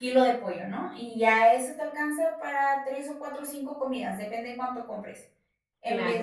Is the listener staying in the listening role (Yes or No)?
No